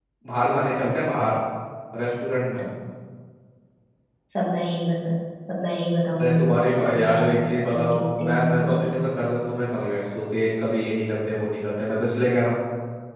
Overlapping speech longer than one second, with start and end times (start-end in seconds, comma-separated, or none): 6.2-9.0